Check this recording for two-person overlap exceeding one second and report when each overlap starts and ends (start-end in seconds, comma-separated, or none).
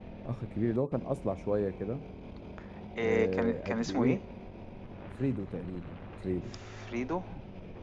3.0-4.2